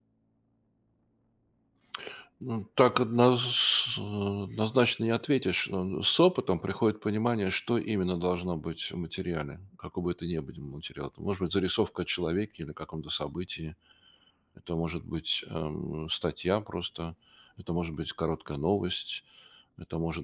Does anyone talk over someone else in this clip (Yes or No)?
No